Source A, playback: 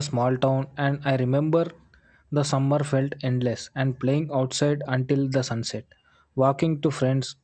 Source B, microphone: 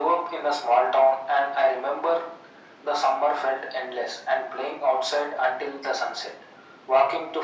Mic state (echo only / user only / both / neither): echo only